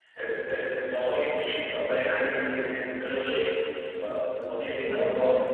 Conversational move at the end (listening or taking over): listening